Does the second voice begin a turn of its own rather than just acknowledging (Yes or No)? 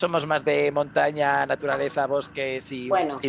Yes